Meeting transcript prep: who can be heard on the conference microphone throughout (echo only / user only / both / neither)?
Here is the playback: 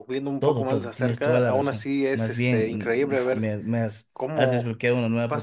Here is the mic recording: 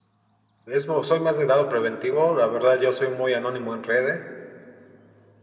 user only